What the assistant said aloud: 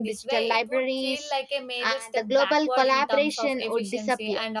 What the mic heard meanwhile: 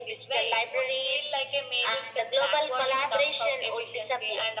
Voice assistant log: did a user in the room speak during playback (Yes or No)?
No